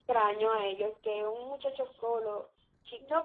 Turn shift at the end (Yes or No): Yes